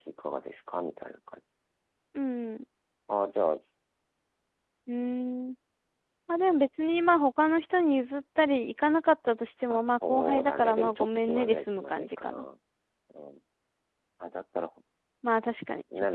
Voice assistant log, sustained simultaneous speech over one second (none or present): present